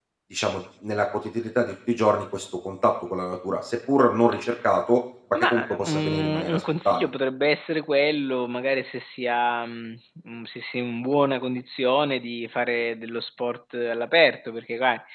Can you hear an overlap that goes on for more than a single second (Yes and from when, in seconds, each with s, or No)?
Yes, from 5.3 s